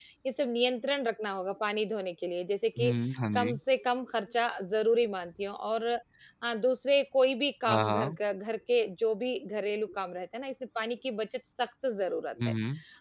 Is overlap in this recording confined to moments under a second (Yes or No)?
Yes